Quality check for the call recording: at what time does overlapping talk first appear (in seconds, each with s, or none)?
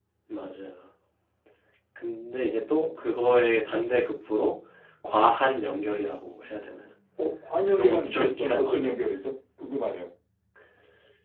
7.7 s